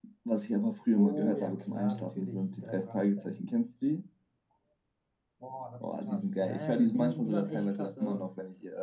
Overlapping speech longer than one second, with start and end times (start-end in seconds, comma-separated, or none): 1.0-3.5, 5.8-8.2